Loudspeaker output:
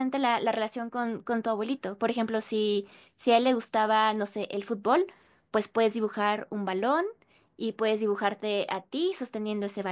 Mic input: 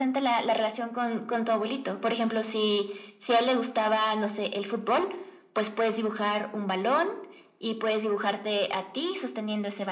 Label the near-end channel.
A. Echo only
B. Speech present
A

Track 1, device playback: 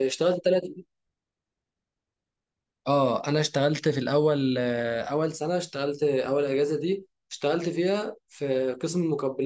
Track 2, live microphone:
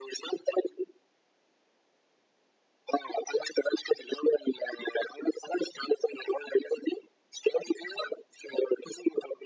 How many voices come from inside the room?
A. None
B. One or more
A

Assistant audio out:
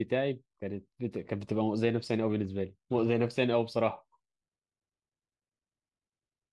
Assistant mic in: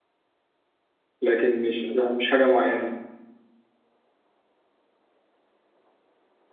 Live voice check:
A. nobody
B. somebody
B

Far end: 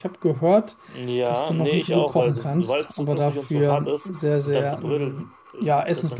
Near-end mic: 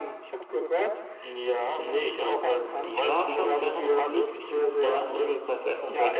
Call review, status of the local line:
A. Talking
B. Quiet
A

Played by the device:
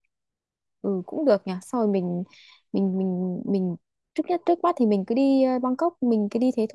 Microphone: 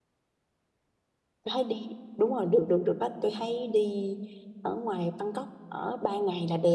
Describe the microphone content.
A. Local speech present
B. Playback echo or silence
A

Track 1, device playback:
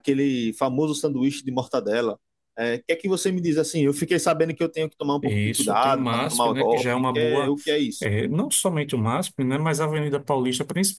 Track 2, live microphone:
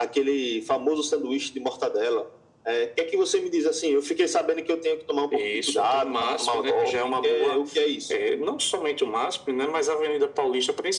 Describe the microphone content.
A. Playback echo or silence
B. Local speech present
A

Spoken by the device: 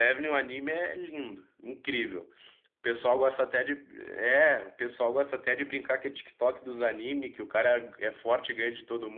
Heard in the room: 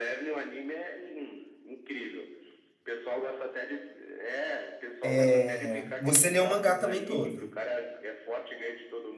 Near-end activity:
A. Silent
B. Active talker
B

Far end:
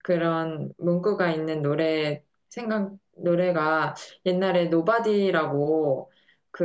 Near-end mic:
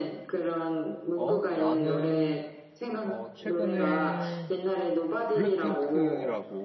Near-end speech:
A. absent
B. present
B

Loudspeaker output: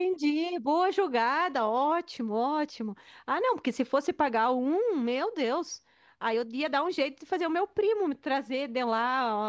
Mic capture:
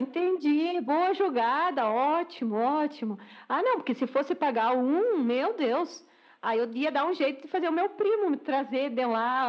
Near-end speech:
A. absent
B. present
A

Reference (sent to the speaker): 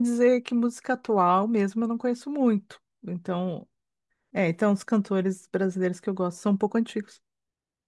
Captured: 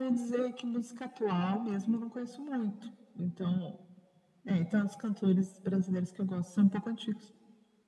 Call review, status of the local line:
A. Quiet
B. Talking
A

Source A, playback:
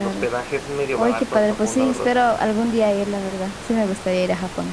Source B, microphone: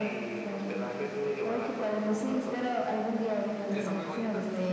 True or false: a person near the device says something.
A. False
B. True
B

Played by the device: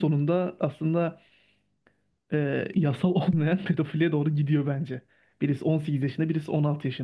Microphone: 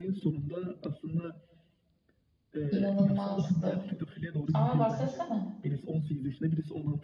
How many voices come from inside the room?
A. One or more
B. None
A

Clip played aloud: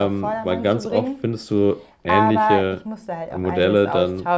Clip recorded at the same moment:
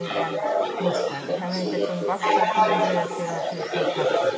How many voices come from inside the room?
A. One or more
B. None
A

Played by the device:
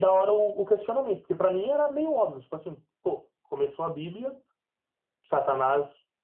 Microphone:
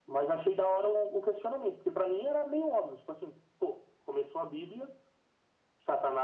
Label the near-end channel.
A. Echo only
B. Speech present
A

